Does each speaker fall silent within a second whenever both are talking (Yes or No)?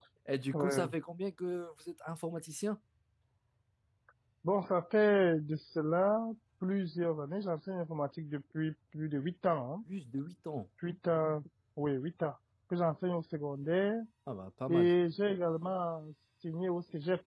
Yes